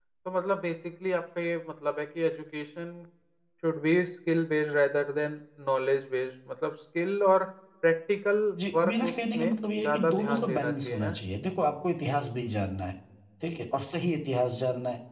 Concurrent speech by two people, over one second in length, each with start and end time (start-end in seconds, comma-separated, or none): 8.8-11.2